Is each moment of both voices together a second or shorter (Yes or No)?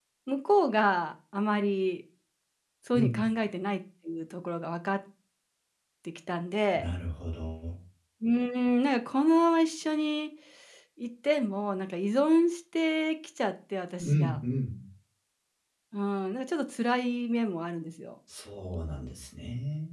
Yes